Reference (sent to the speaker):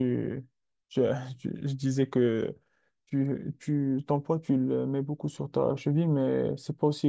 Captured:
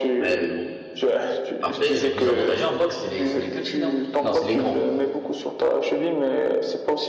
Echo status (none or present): present